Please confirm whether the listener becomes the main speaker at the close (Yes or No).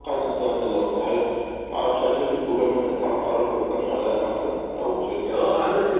Yes